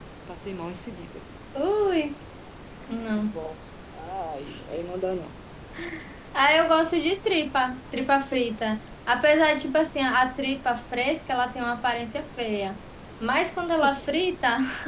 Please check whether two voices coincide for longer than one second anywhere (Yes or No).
No